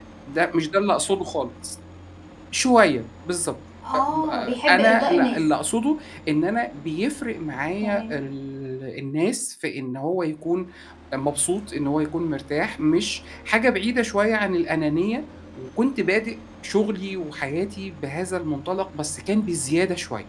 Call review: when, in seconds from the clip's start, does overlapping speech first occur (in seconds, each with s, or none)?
3.9 s